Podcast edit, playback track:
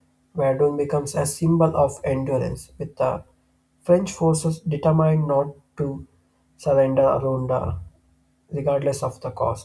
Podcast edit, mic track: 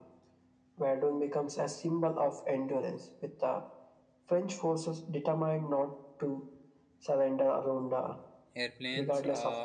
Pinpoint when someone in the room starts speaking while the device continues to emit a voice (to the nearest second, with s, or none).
9 s